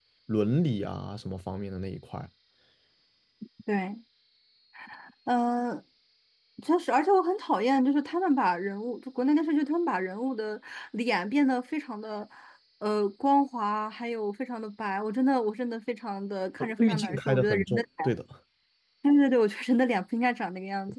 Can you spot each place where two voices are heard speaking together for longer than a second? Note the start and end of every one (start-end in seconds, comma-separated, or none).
16.6-17.8